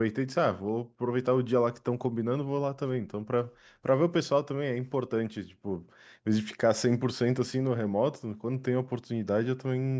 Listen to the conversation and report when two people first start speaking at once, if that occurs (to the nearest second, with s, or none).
none